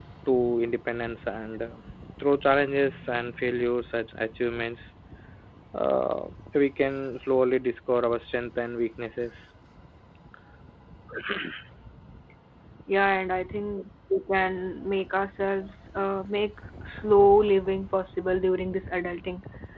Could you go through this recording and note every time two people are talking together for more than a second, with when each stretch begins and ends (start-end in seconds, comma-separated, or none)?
none